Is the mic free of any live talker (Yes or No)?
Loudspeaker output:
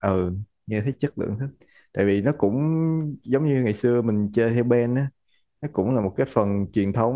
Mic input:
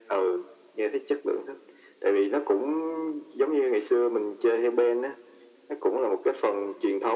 Yes